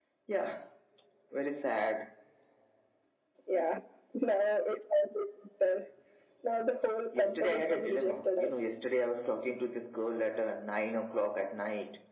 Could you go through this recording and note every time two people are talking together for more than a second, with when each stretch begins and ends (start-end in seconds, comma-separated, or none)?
7.1-8.7